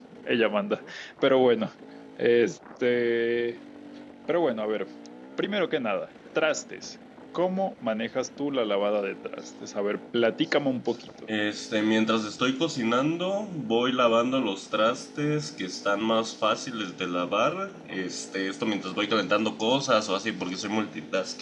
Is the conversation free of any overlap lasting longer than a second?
Yes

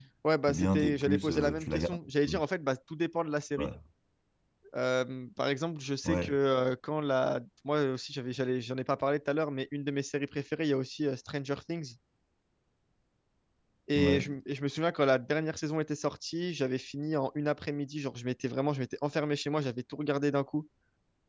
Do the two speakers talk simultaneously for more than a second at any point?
Yes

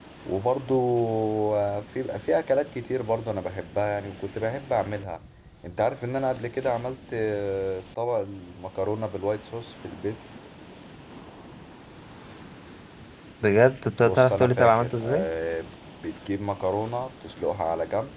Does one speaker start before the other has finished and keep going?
Yes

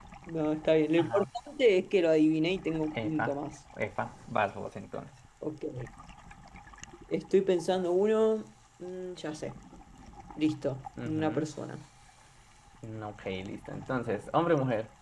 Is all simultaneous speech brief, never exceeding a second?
Yes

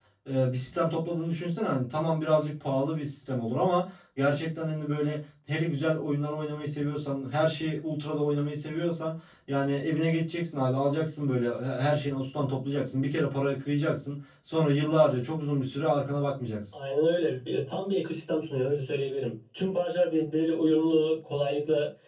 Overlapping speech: No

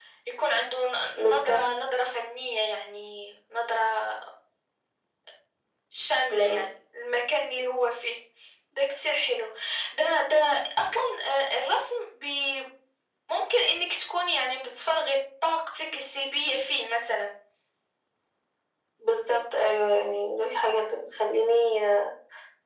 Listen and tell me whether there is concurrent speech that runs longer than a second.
No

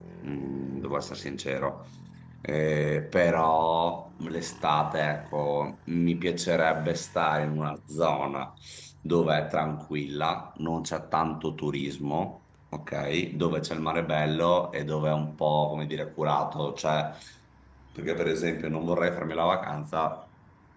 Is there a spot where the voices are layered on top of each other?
No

